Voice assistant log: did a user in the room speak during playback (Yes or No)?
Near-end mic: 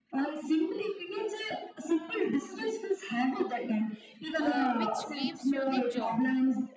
Yes